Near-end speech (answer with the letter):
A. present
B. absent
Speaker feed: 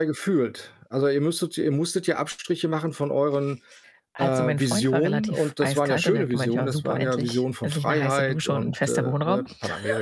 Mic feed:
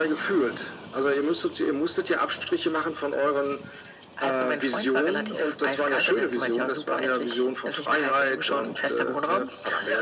B